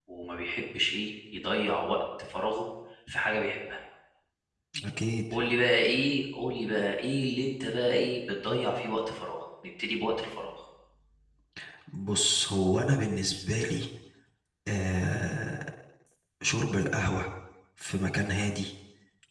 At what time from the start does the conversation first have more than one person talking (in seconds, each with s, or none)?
none